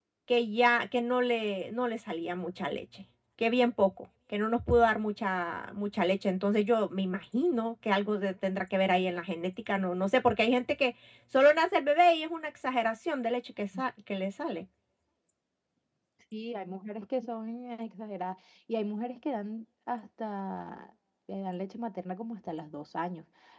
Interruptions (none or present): none